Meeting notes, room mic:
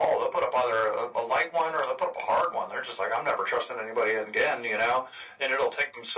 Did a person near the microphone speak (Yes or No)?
No